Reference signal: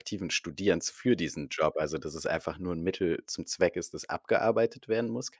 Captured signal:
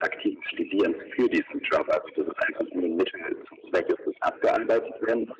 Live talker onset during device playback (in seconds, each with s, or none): none